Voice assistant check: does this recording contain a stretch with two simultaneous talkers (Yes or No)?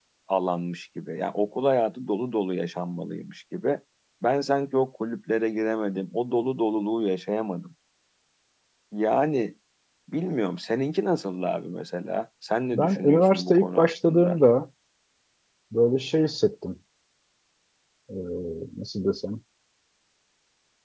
Yes